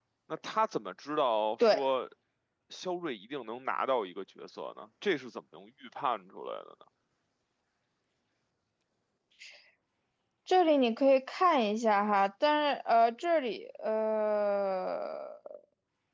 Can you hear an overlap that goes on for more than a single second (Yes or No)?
No